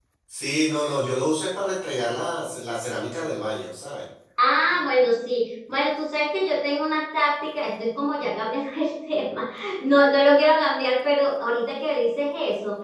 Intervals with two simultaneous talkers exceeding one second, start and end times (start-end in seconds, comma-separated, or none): none